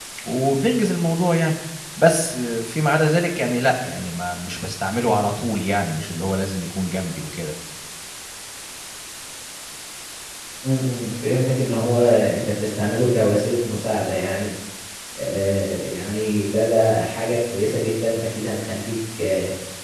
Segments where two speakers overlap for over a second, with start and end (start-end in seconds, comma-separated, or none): none